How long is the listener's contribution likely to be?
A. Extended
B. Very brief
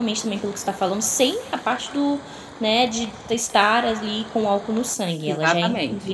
B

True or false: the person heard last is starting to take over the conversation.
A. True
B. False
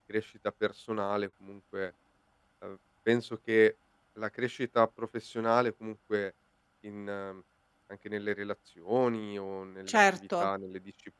B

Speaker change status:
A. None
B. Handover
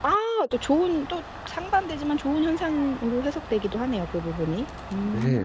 B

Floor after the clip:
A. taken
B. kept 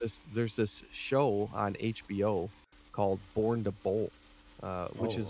B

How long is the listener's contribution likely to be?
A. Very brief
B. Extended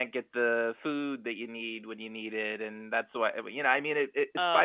A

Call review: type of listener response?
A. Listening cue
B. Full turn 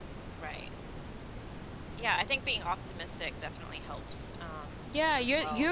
B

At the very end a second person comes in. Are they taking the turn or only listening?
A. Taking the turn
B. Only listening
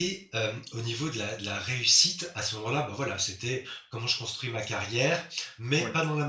B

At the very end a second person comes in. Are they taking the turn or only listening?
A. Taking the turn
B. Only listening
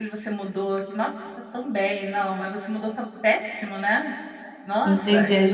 A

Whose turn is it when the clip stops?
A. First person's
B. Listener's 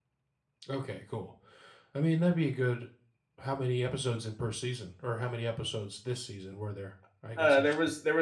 B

